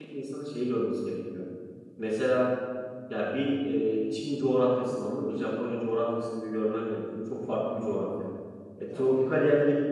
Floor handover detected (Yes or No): No